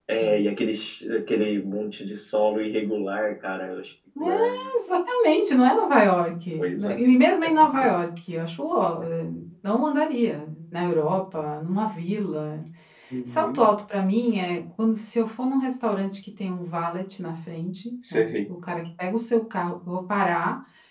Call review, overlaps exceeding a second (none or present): none